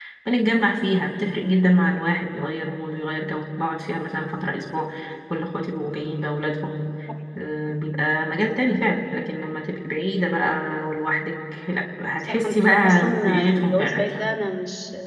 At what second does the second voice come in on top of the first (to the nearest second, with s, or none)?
12 s